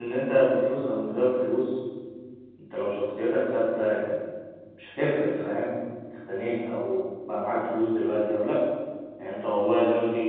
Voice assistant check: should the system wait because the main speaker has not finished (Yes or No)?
Yes